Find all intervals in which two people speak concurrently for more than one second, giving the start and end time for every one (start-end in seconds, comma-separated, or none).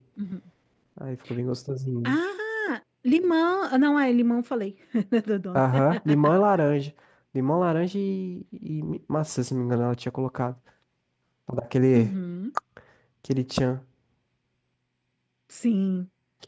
none